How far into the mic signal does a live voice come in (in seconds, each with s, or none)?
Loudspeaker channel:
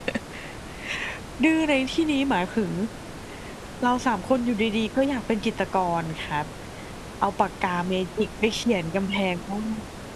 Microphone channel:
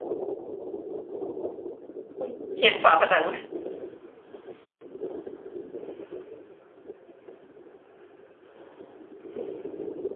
2.2 s